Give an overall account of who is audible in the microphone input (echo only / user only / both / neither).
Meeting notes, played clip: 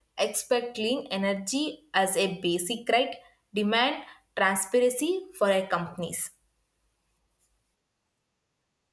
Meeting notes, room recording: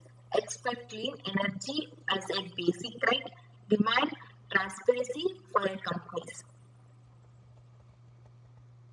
echo only